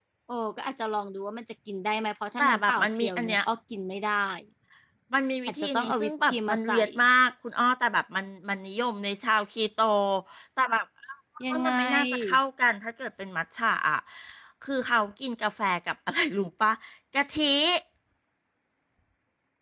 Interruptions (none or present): present